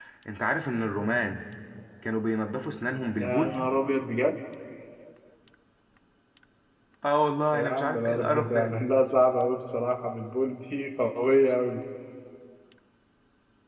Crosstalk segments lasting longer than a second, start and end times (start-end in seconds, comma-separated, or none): 7.5-8.7